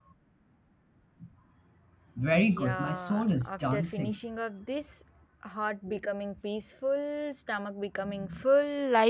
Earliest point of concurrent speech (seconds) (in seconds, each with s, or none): 2.3 s